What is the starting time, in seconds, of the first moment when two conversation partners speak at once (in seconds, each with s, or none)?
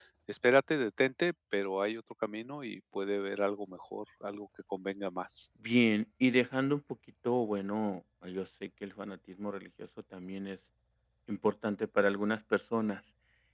none